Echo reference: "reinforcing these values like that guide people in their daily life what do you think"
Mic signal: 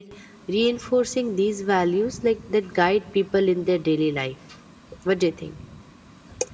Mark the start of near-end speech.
none

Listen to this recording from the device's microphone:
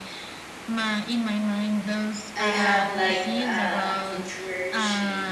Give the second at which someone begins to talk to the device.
2.4 s

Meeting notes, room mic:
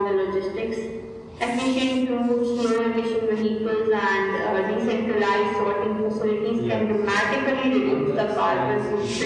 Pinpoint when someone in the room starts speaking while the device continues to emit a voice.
6.6 s

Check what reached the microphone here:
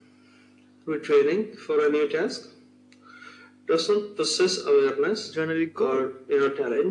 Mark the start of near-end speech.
5.3 s

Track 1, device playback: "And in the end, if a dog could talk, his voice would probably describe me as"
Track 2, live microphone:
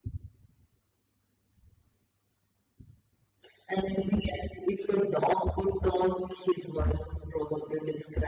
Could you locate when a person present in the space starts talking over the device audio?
none

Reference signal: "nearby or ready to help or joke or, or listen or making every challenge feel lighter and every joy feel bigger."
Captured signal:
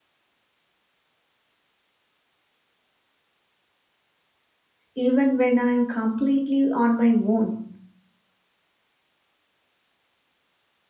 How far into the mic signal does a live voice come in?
4.9 s

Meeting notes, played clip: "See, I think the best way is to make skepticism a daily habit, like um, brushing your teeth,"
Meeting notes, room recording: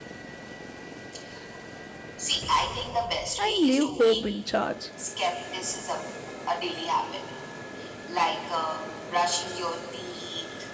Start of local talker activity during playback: 3.4 s

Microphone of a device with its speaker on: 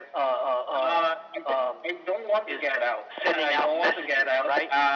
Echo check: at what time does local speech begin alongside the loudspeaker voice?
none

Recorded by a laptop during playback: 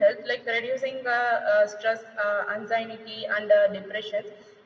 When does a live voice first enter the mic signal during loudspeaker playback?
none

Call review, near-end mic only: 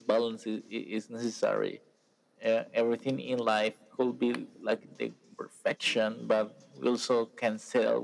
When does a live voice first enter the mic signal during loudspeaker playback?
none

